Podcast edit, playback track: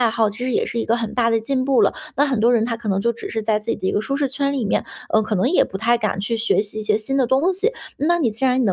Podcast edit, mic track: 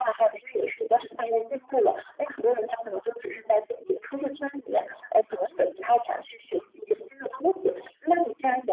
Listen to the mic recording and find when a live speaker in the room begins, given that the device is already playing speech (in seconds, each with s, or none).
none